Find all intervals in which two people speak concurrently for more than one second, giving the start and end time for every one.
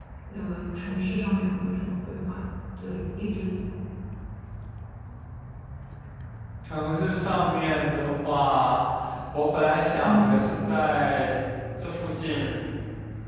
none

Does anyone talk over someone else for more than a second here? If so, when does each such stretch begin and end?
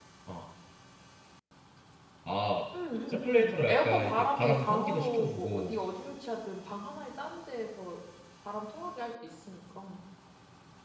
3.1-5.8

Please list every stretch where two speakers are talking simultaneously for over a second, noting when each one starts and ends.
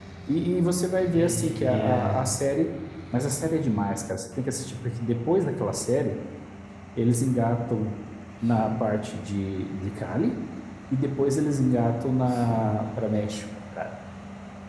1.0-2.2

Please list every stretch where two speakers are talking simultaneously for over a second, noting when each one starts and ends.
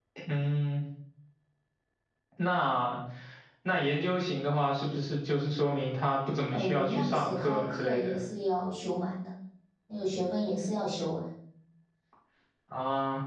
6.5-8.1

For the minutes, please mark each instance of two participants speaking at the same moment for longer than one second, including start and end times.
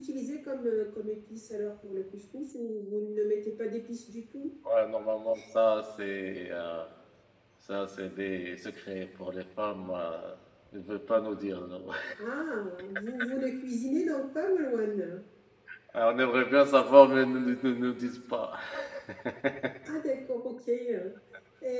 none

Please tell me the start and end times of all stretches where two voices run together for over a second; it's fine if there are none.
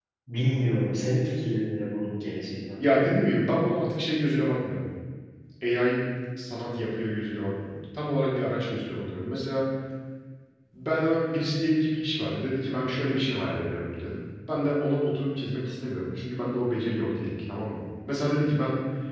none

